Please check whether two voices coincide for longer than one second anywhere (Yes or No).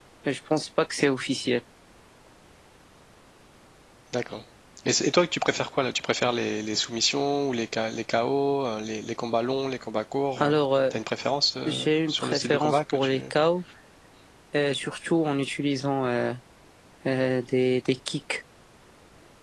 Yes